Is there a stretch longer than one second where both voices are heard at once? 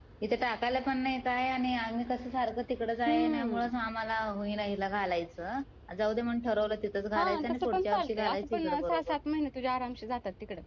Yes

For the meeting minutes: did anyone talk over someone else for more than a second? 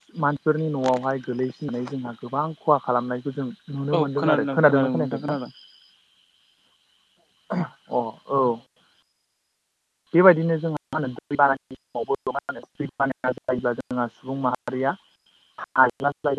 Yes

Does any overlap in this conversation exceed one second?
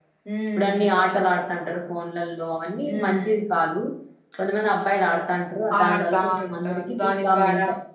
Yes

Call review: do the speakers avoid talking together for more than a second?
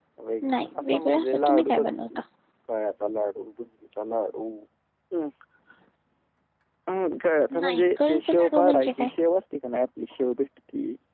No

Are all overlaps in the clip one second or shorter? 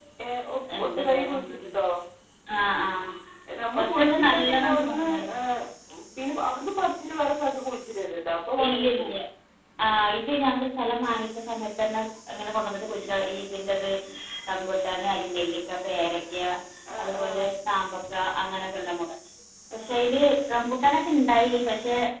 No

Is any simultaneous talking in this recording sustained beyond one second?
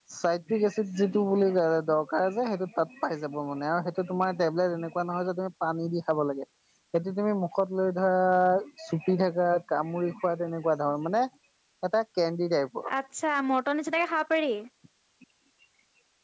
No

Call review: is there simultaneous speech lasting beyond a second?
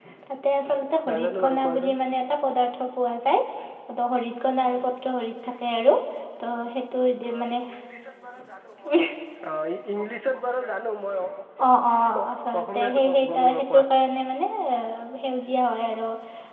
Yes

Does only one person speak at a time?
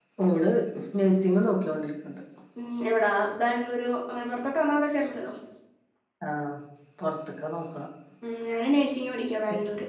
Yes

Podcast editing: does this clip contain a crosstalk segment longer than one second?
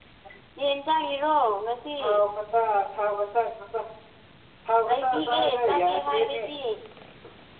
Yes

